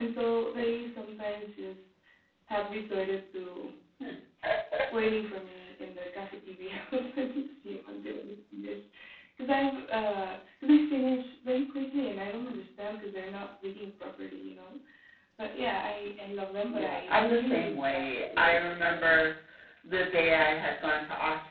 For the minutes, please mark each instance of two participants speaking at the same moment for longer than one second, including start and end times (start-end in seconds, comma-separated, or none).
16.7-19.2